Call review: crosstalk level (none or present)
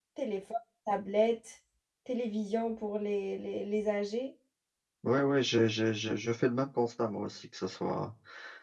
none